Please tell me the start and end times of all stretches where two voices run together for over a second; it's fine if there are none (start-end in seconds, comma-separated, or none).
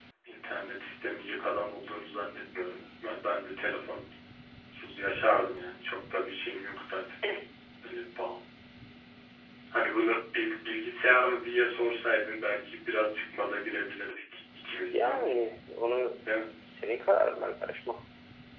none